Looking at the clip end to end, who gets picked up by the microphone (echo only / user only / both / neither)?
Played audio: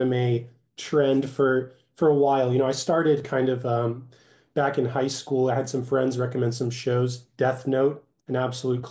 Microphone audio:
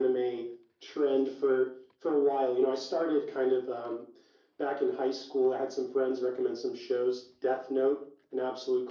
echo only